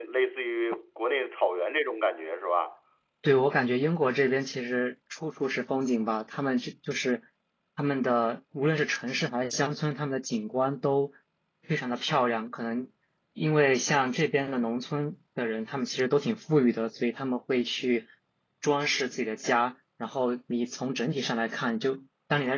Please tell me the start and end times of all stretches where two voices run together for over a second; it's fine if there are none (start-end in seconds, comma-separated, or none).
none